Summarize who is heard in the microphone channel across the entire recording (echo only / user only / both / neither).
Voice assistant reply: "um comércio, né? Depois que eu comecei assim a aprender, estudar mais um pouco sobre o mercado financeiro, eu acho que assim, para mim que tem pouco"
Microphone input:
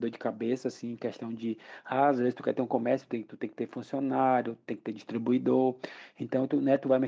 user only